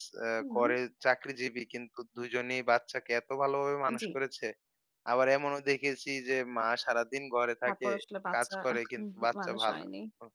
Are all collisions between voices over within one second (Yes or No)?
No